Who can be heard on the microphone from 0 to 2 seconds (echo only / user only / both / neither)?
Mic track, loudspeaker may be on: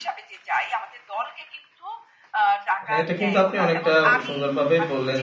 echo only